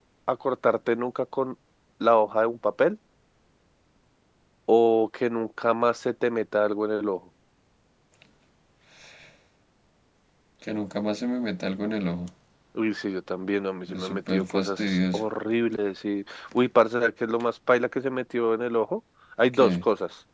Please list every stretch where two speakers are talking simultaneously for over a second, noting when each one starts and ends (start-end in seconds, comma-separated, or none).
13.9-15.2